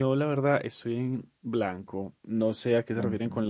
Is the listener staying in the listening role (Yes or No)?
Yes